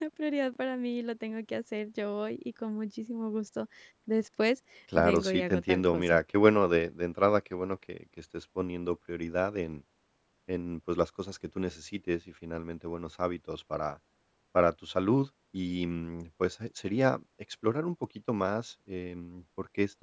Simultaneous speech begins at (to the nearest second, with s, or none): 5 s